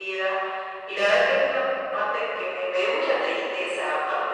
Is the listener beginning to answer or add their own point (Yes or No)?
Yes